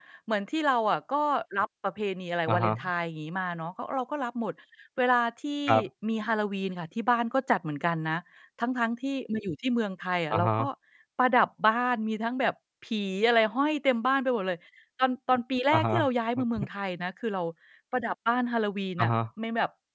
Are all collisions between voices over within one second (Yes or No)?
Yes